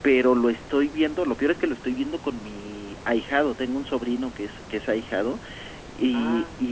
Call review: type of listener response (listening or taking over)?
listening